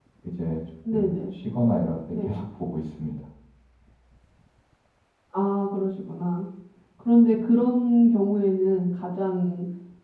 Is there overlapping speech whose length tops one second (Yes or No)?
No